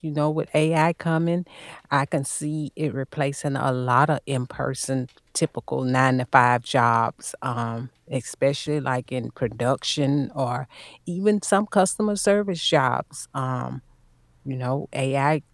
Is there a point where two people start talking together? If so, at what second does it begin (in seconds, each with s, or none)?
none